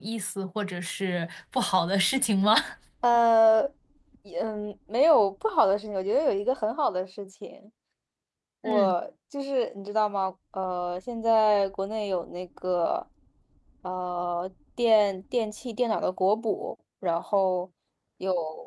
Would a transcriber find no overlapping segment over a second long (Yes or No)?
Yes